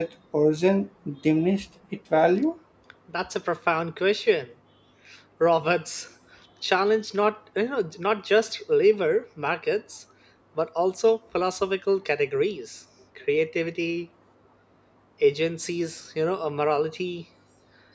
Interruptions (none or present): none